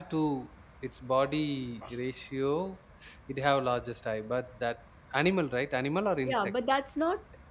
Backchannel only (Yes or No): No